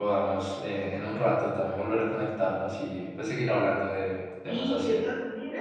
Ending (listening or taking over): taking over